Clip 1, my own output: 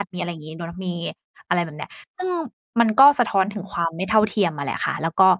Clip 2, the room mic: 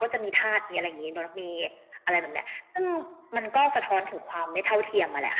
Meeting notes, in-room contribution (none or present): none